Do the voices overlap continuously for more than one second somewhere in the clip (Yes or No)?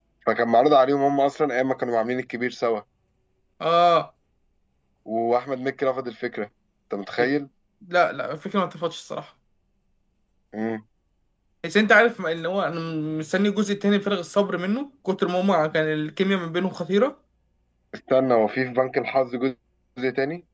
No